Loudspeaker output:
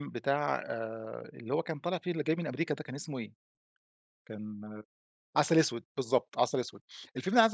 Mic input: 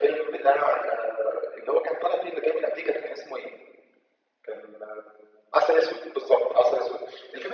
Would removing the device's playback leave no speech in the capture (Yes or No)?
Yes